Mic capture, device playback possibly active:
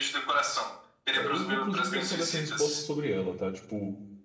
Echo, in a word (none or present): present